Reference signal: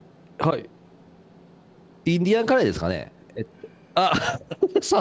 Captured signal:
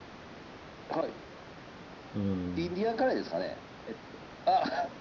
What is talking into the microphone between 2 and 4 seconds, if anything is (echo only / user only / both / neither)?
both